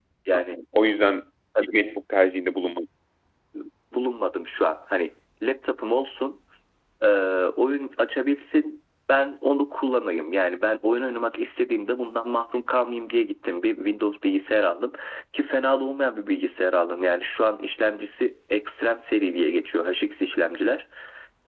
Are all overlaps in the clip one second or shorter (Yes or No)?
Yes